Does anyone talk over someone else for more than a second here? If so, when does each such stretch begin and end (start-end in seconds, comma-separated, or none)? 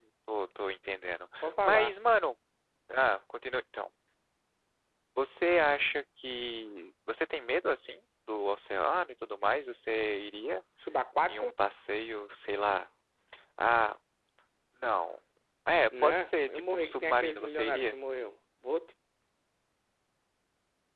16.0-18.0